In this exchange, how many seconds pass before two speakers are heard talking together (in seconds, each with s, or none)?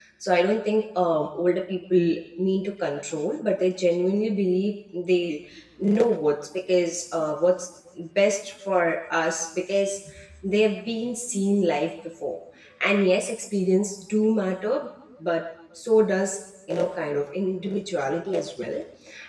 none